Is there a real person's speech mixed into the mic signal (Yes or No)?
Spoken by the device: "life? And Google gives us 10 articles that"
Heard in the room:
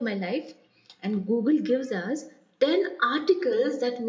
No